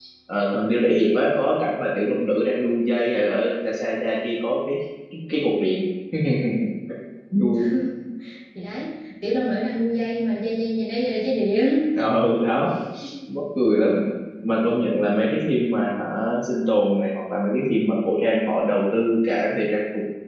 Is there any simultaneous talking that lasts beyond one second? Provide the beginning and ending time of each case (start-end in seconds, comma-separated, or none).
none